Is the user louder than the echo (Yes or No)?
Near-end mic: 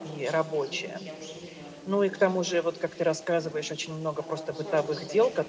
Yes